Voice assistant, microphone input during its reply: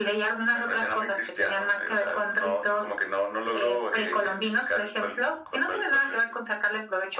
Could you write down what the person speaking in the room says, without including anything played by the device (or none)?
none